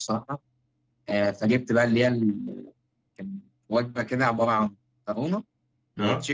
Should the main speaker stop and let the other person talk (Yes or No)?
No